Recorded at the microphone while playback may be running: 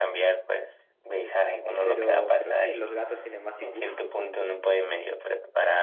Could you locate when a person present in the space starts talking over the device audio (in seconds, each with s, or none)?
1.8 s